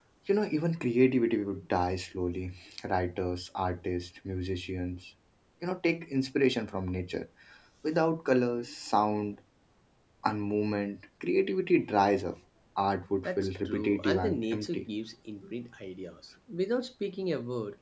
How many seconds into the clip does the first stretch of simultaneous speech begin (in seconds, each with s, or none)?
13.2 s